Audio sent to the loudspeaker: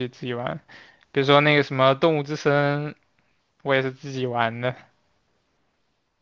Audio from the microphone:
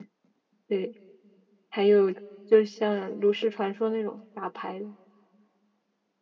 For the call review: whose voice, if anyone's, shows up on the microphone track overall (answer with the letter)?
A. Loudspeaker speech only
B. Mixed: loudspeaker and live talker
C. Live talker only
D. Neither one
C